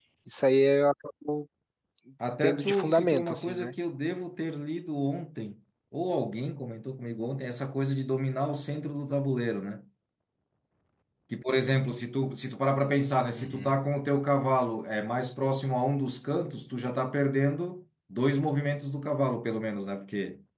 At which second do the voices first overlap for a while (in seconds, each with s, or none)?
2.4 s